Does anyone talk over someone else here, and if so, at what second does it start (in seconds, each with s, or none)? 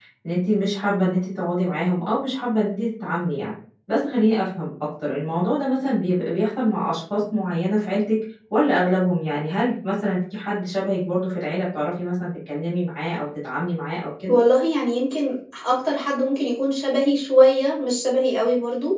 none